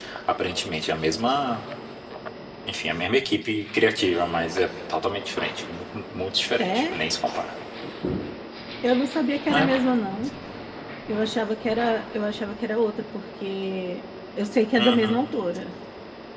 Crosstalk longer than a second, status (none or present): none